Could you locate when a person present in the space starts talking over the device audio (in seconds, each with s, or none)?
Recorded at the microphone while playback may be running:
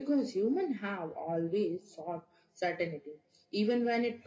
none